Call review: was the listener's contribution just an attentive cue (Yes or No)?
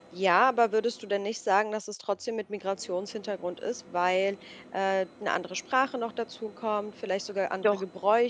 Yes